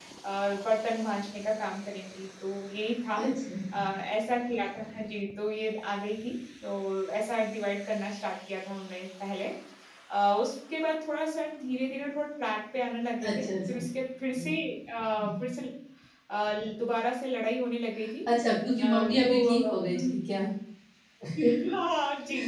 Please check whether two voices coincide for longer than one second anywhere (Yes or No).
Yes